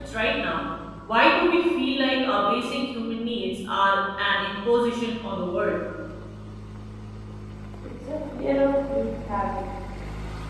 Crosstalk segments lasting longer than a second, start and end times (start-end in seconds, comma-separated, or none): none